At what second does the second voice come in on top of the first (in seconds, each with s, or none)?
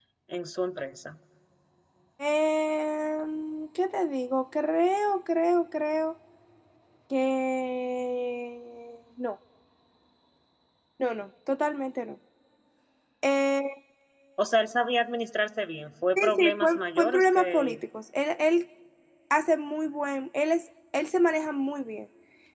16.1 s